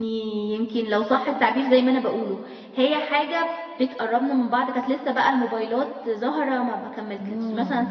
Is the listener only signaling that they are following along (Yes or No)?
Yes